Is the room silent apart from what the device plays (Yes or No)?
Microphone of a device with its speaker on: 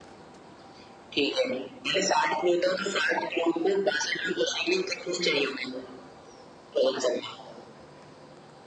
Yes